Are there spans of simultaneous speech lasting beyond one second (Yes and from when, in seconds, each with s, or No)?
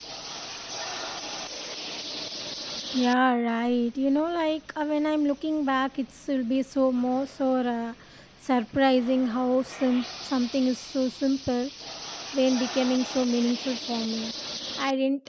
No